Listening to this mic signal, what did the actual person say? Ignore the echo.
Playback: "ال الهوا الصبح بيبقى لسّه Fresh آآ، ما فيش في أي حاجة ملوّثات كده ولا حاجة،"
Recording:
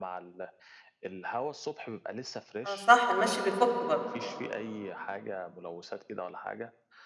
آه صح، المشي بيفُك برضه، آه،

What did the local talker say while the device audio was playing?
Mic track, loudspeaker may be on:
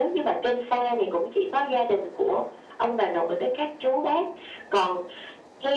none

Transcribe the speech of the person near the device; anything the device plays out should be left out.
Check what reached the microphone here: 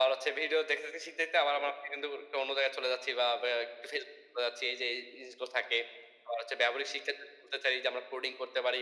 none

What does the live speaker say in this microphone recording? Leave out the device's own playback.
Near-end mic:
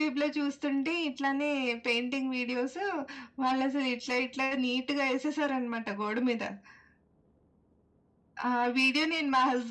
none

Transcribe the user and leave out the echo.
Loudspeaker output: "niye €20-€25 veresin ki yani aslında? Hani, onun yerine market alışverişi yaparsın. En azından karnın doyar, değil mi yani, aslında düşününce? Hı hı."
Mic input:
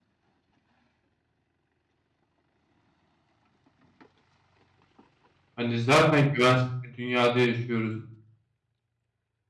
hani, zaten güvensiz bir dünyada yaşıyoruz,

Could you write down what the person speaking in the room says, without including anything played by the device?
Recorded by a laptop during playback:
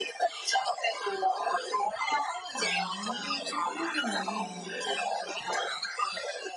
아, 뭐 그렇겠네요.

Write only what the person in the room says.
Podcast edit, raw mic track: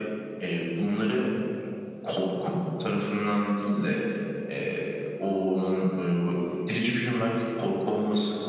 none

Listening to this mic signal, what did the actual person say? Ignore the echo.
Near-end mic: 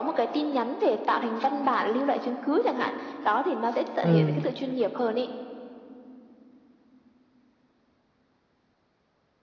Ừ.

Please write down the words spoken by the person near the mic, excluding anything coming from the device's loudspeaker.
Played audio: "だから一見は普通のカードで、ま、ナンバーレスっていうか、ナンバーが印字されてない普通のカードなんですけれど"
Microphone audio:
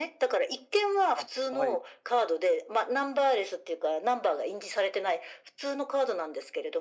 あ、はい。

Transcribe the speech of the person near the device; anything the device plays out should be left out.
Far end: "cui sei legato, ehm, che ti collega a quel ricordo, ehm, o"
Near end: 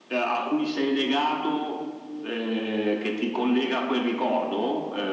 none

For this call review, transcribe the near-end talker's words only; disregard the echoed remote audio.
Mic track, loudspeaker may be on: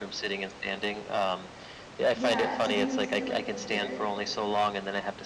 Yeah. So do you sit at, like, a computer?

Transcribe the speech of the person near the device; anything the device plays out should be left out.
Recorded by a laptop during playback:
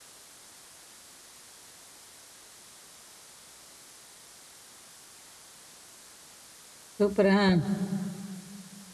சூப்பர் ஆ.

